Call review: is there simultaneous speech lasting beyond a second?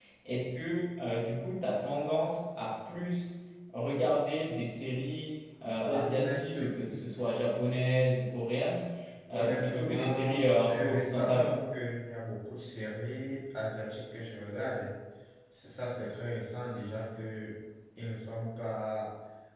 Yes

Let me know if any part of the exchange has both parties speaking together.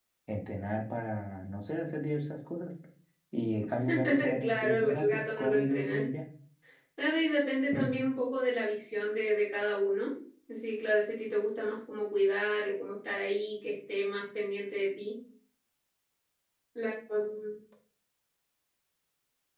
Yes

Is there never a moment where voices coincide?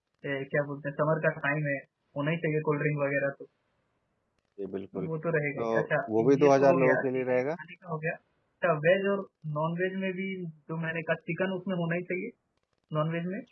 No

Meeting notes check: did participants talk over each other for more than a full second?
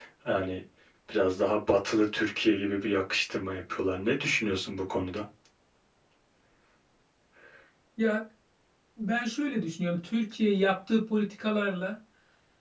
No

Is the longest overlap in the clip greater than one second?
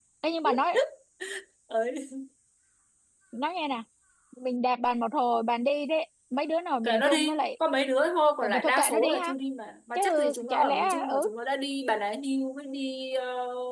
Yes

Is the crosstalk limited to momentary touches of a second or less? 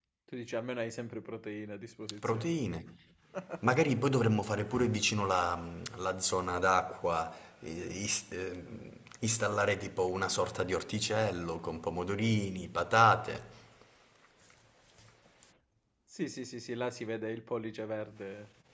Yes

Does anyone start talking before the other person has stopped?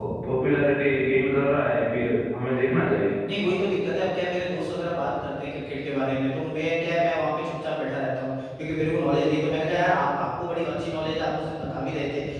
No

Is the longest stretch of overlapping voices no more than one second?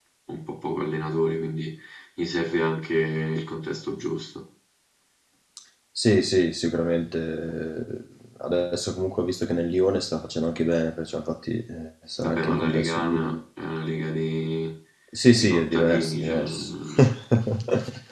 No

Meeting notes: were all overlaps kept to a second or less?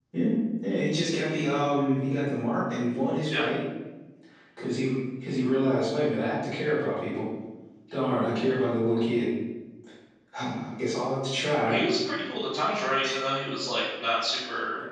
Yes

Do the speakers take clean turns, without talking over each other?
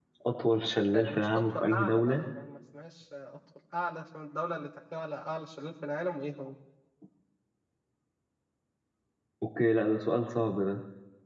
No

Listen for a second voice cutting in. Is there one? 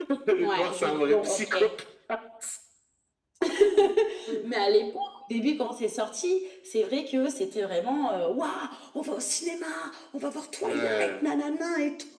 Yes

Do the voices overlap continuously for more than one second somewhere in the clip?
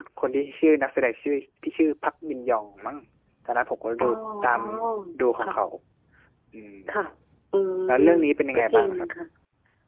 No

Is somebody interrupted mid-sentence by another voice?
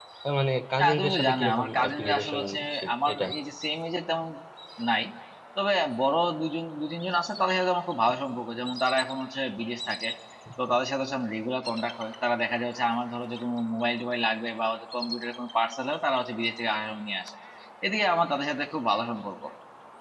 Yes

